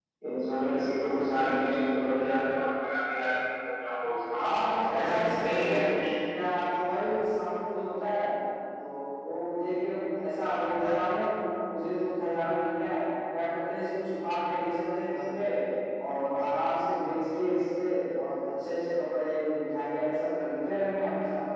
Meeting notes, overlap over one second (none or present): present